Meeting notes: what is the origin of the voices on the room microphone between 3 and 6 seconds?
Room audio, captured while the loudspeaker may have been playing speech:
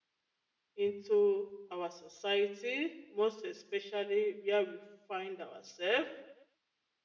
user only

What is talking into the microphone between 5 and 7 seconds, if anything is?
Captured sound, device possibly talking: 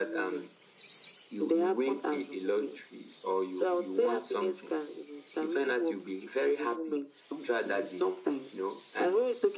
echo only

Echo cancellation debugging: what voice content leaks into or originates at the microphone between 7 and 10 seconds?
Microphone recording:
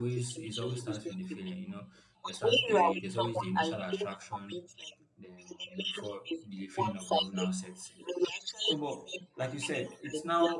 both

